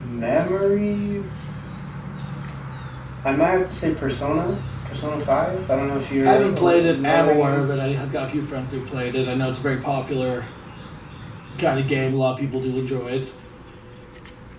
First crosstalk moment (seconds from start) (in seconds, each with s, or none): 6.2 s